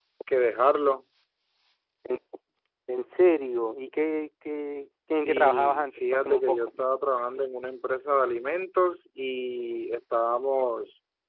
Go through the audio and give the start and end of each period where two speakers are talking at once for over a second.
5.1-6.7

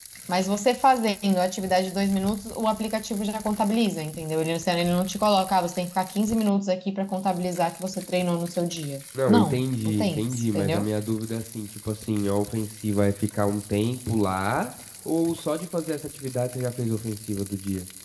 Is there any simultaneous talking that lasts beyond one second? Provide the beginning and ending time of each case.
9.3-10.8

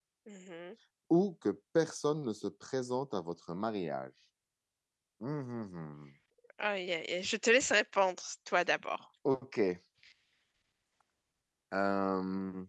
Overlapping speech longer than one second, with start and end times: none

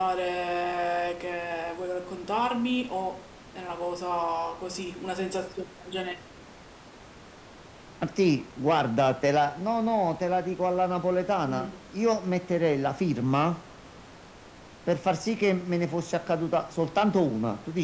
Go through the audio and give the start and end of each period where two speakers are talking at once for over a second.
none

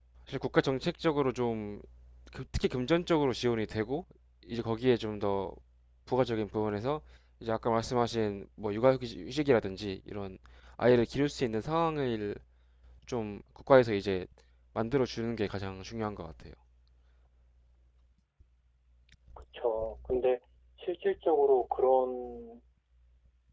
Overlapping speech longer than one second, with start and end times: none

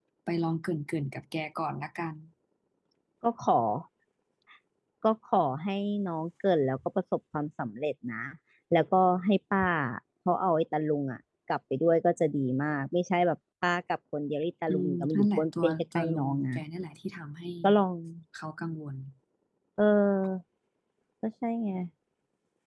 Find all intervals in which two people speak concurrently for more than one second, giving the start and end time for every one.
14.7-16.6

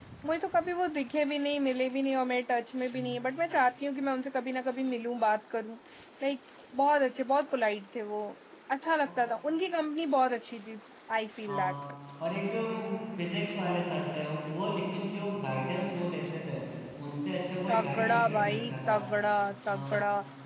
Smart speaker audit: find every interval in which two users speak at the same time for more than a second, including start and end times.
17.7-18.9

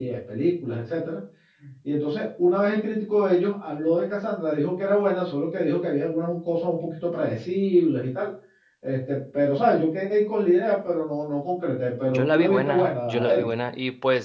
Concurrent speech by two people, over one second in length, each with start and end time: 12.1-13.4

